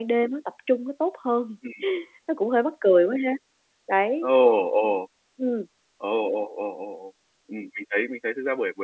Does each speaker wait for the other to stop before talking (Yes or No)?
Yes